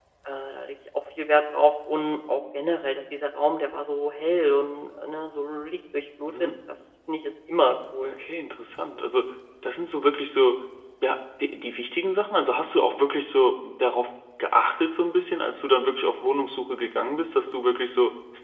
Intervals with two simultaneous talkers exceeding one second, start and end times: none

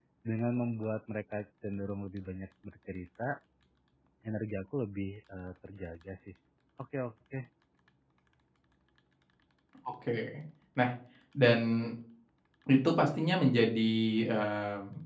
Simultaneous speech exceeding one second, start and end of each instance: none

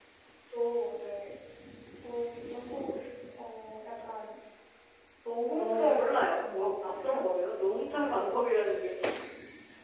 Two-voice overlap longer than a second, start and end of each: 5.6-7.1

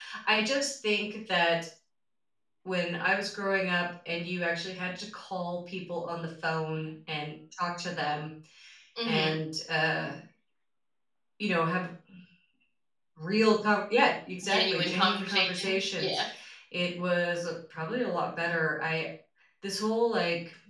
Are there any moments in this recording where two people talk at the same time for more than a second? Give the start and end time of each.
14.4-16.2

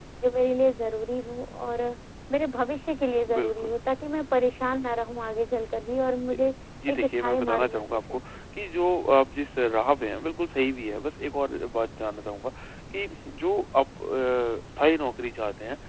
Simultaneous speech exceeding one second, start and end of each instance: 6.9-8.1

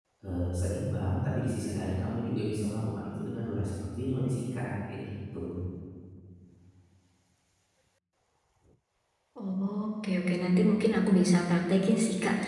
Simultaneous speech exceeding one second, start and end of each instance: none

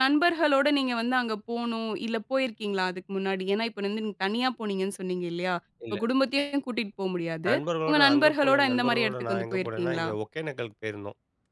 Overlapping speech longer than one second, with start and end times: 7.9-10.1

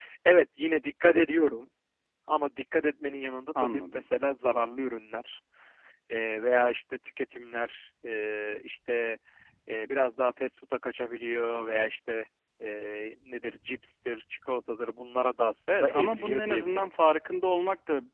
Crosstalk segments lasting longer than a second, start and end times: 15.7-16.9

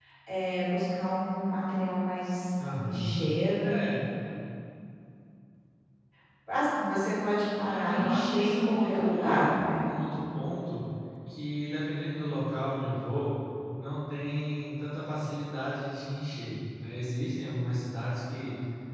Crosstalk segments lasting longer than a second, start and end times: 7.7-9.4

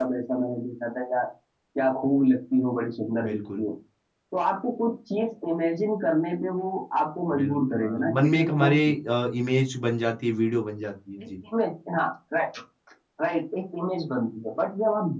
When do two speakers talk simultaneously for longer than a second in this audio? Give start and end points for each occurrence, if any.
7.4-9.0

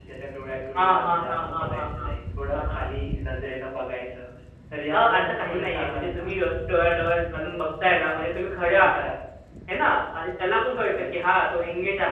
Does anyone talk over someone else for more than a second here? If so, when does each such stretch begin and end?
0.8-2.1, 4.9-6.3

